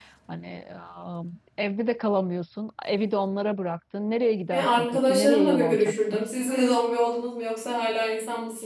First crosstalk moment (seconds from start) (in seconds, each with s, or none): 4.5 s